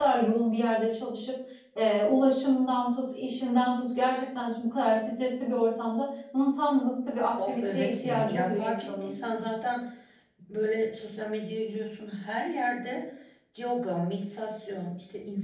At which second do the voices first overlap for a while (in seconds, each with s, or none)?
7.4 s